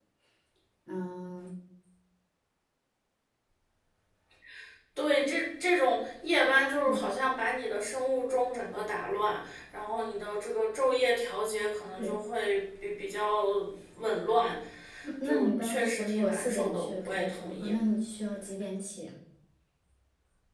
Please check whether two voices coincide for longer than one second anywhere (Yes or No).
Yes